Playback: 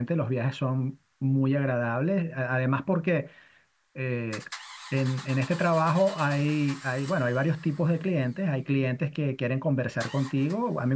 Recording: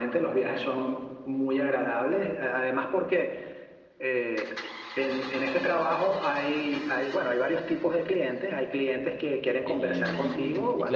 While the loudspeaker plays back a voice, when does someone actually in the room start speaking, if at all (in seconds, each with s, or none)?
9.6 s